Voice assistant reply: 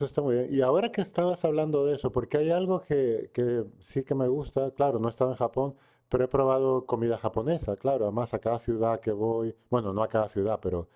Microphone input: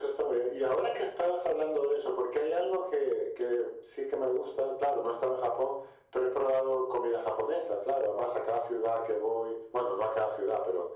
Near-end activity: none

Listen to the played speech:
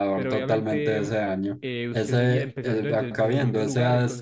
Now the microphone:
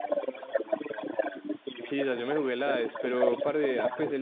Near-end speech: present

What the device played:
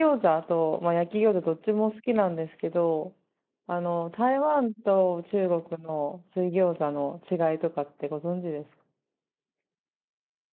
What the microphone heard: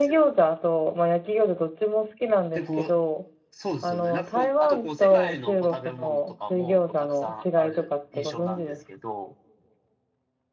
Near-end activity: present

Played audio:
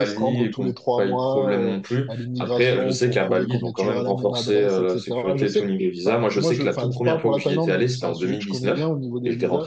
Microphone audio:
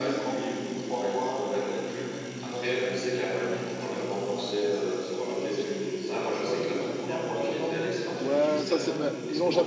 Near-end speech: present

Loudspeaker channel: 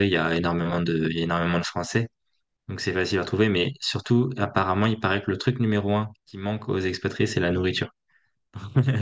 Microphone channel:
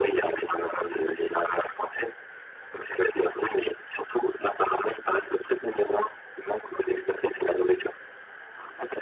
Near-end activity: none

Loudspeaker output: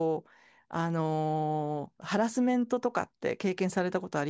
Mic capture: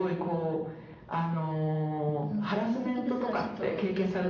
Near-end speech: present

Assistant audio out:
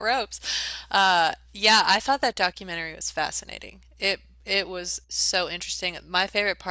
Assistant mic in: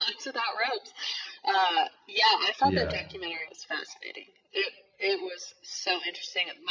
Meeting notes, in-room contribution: present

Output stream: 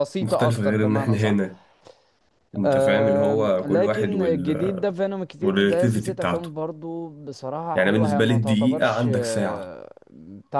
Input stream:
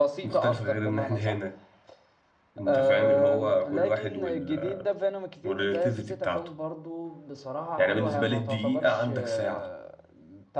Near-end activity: none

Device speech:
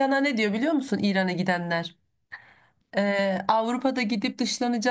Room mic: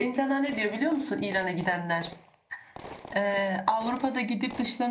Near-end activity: none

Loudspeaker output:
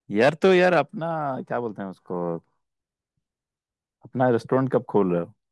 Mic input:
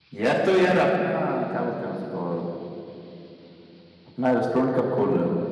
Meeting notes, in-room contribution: none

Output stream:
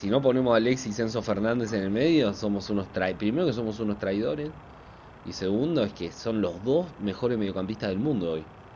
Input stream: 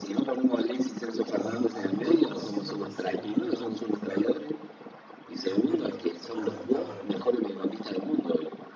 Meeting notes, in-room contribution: present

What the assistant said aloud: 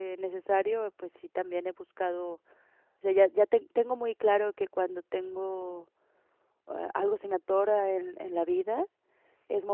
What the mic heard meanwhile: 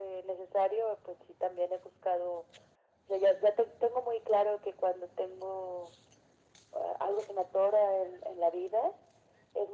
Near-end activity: none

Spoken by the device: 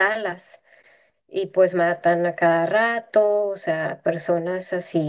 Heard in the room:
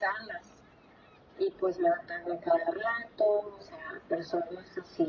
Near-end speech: none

